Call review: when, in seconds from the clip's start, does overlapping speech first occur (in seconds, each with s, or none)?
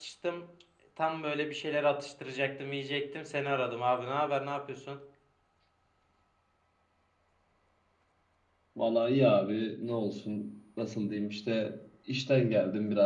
none